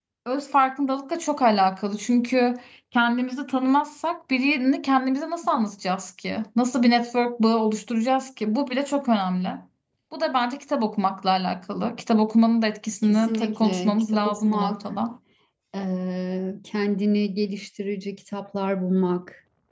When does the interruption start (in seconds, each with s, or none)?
13.0 s